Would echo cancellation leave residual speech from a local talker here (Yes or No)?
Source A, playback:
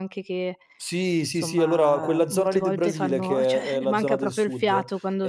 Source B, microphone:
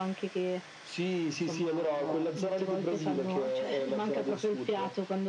No